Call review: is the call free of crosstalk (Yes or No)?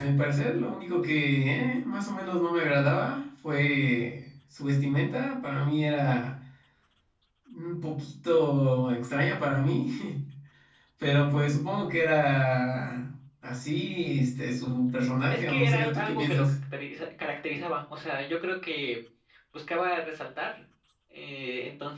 No